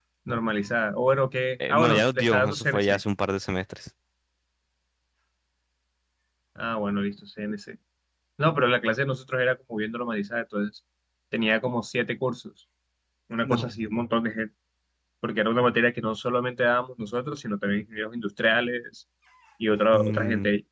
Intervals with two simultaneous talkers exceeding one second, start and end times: 1.7-3.0

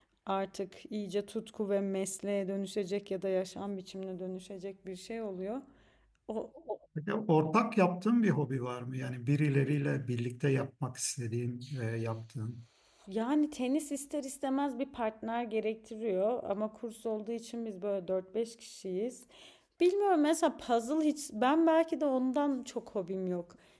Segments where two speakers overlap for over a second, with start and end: none

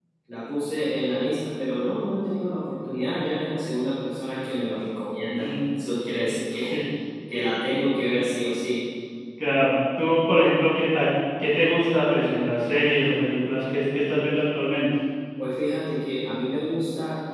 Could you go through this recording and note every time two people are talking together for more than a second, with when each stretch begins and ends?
none

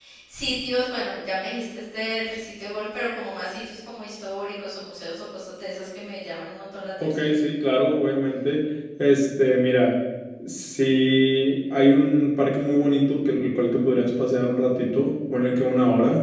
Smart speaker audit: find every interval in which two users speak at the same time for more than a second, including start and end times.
none

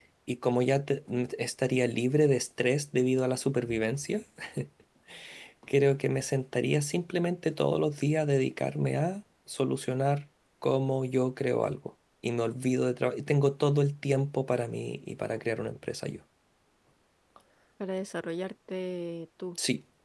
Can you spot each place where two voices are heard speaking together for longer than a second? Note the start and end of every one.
none

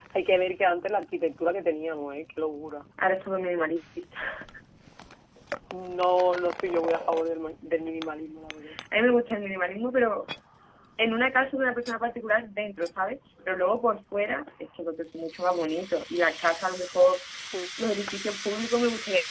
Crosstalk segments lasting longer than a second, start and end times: none

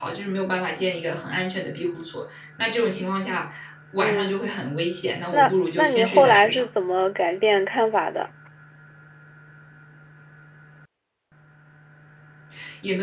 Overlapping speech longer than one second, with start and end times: 5.3-6.6

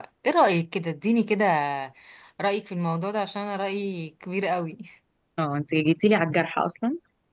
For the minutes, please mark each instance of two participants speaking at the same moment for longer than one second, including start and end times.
none

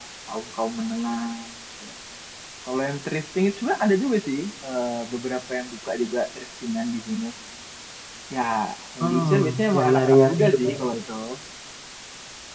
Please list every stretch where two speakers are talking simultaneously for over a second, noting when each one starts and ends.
9.0-10.7

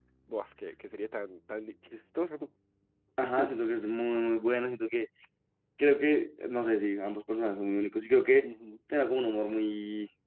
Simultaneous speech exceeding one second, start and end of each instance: none

